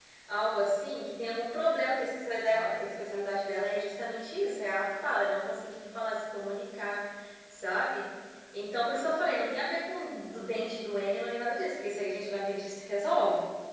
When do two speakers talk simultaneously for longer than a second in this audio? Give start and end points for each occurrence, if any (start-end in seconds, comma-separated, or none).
none